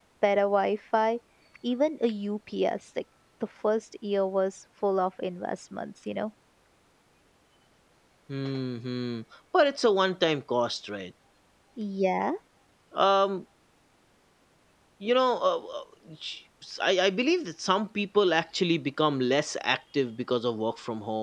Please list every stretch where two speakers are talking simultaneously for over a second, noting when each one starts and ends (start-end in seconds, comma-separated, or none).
none